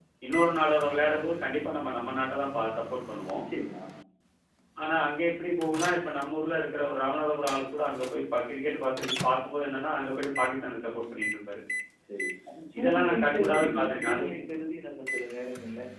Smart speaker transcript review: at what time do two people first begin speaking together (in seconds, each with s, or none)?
12.8 s